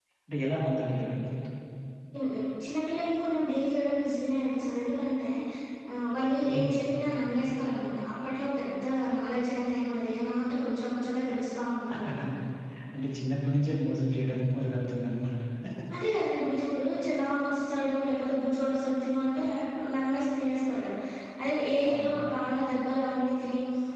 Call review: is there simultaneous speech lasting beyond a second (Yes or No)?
No